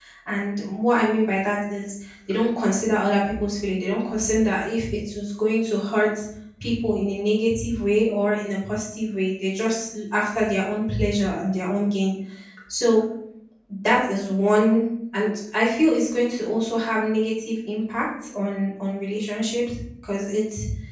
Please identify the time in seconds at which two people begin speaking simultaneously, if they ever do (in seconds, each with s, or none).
none